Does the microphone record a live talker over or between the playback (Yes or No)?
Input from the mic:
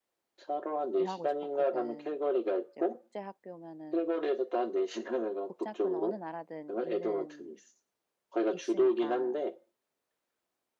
Yes